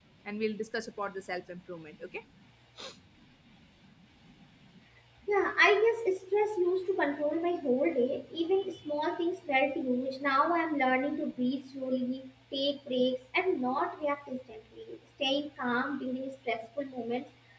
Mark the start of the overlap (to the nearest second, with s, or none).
none